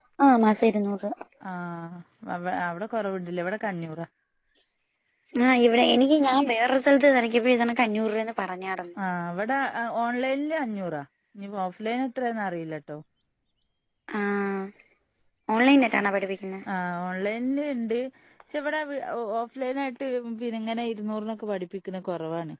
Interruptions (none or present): none